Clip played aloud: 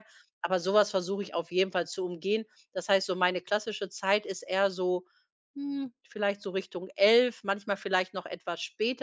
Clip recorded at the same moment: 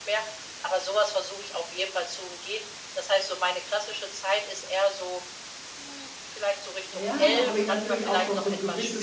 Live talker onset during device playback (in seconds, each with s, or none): 6.9 s